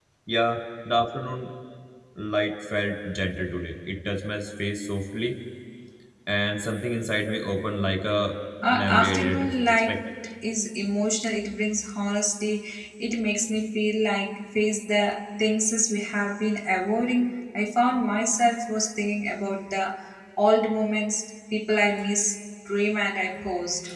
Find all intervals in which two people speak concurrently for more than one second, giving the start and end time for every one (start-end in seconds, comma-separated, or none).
8.7-10.0